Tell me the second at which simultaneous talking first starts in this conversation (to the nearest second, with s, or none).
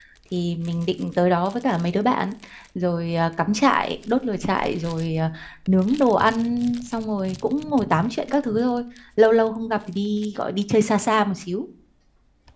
none